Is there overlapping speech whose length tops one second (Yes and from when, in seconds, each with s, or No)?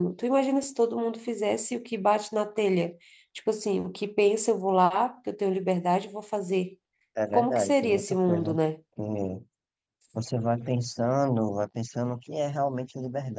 Yes, from 7.3 s